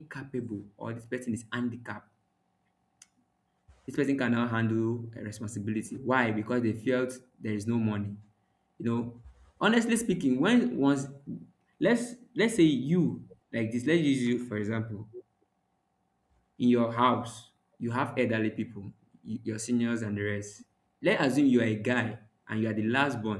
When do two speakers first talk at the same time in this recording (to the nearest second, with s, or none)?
none